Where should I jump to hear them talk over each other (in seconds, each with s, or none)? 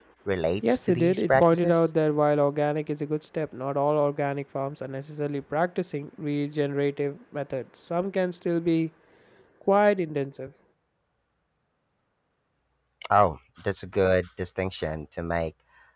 0.7 s